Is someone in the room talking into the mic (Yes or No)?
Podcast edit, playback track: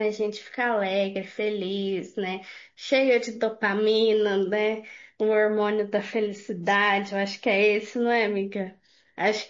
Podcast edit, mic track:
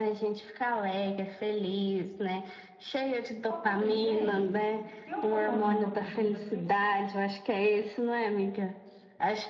Yes